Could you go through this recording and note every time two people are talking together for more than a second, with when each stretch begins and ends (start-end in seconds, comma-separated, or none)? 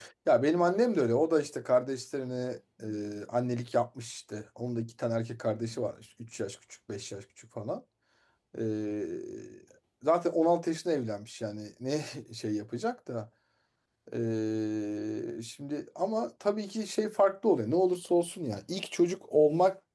none